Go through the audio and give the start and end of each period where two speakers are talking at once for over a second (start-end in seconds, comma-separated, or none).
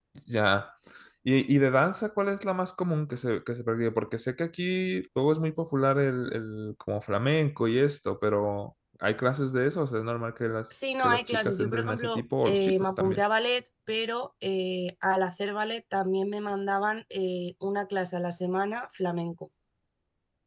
11.0-13.2